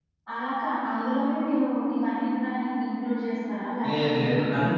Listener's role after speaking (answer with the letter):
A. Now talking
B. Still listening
A